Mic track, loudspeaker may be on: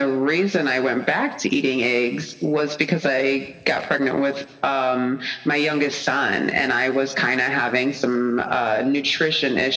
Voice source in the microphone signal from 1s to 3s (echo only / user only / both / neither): echo only